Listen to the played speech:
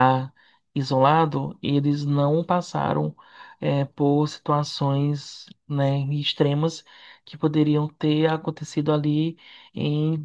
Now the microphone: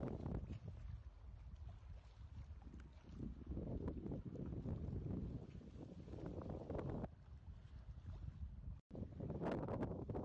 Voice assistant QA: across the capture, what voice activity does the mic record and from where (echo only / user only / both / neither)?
neither